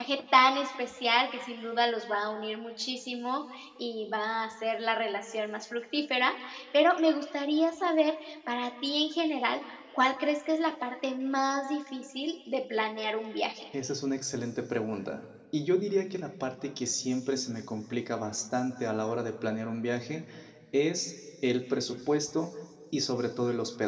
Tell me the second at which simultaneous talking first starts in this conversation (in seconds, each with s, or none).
none